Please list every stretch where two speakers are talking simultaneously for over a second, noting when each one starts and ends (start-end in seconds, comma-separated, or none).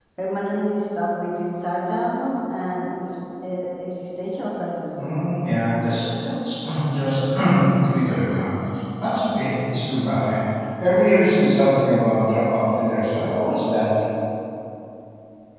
none